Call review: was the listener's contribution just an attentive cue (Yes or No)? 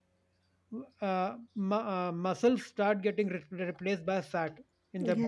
No